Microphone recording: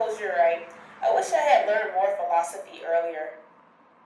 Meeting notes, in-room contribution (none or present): none